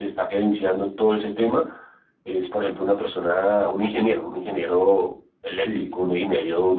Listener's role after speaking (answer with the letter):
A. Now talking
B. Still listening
B